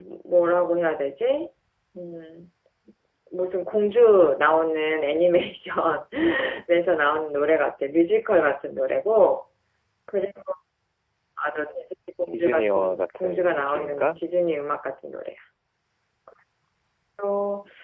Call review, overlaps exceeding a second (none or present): present